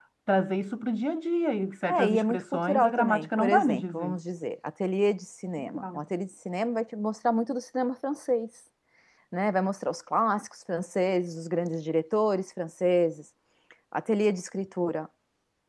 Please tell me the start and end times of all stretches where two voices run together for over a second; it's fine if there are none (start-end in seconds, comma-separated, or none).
1.9-4.2